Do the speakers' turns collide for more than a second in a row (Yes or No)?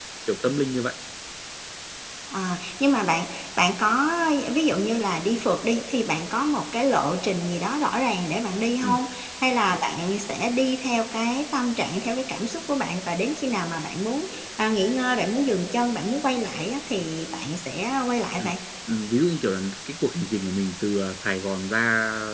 No